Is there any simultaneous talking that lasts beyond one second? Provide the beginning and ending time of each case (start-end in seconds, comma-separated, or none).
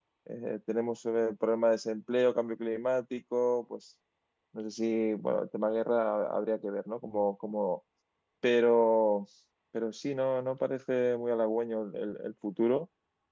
none